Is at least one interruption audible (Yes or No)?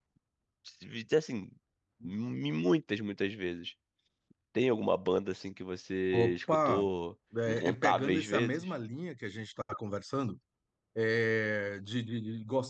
Yes